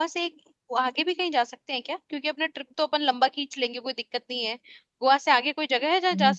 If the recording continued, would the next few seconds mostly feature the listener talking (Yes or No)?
Yes